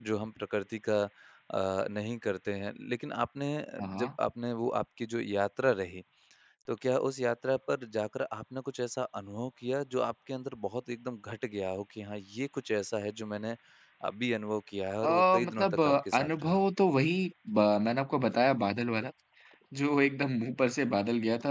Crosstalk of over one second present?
Yes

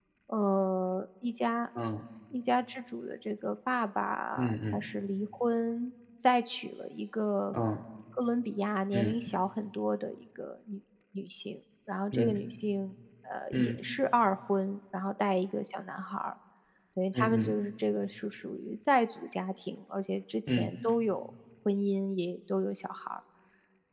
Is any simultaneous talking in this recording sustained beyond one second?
No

